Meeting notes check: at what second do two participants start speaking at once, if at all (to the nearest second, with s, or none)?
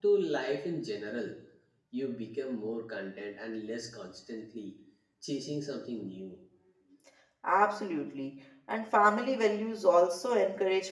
none